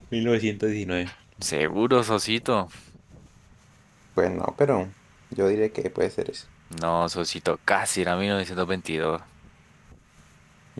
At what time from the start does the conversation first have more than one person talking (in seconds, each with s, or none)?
none